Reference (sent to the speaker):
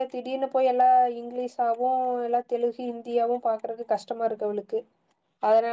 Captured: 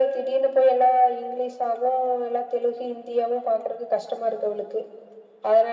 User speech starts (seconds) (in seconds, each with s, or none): none